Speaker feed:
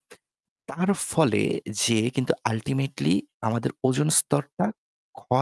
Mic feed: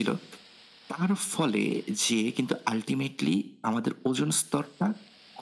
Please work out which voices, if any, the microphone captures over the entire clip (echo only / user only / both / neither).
echo only